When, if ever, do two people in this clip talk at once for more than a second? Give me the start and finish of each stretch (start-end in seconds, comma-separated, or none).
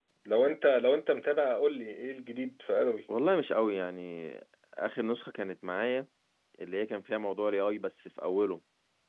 none